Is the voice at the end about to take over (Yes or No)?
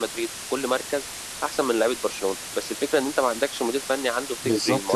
Yes